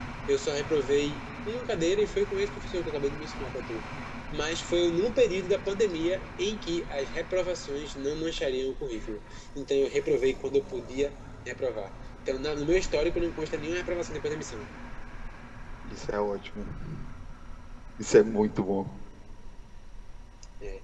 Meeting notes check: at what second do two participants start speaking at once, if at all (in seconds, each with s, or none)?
none